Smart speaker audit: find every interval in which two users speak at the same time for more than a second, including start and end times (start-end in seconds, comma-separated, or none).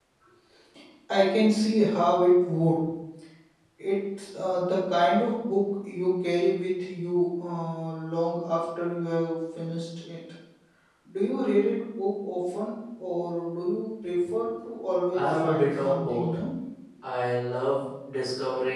15.1-16.4